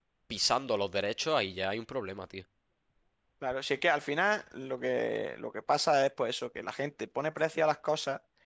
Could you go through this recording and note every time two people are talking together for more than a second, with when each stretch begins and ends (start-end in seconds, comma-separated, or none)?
none